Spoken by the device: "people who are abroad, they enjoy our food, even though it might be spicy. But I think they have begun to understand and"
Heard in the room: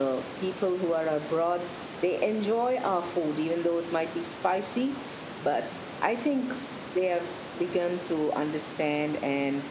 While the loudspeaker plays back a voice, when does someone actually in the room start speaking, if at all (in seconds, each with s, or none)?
none